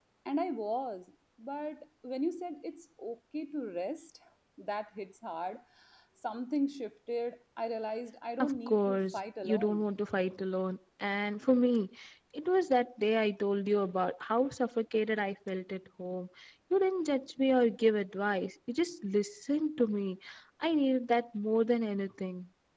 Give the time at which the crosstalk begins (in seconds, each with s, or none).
8.4 s